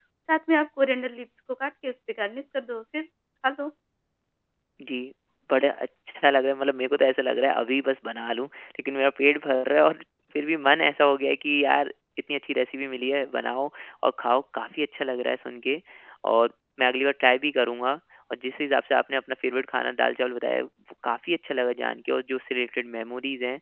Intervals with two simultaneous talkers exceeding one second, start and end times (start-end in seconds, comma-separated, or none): none